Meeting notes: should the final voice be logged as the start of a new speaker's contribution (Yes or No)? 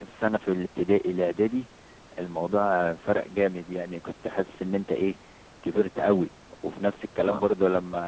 No